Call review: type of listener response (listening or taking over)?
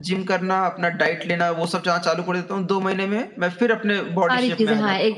taking over